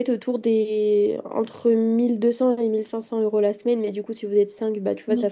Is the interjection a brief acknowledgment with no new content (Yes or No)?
Yes